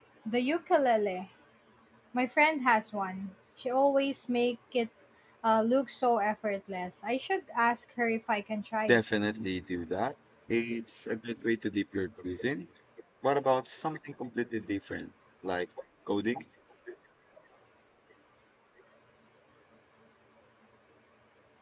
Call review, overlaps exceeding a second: none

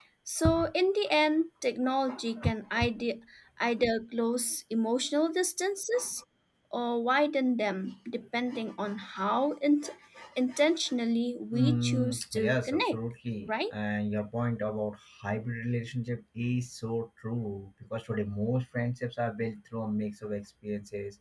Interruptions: present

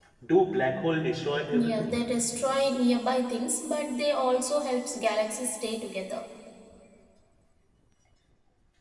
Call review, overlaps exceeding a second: none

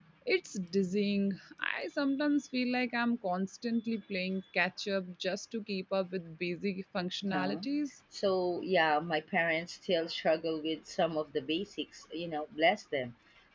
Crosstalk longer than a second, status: none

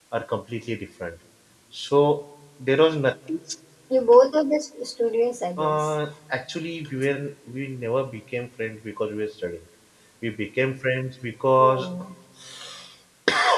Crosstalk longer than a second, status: none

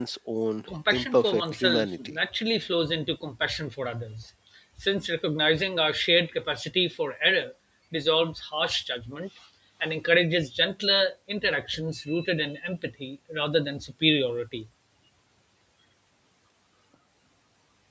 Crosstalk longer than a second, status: present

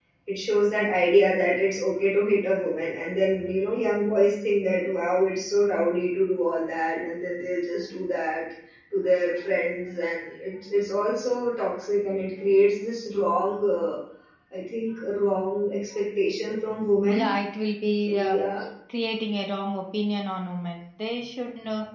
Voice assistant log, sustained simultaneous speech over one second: none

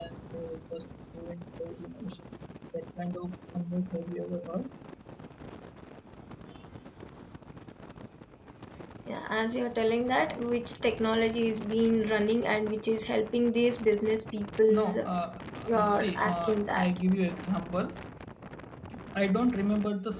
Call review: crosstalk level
present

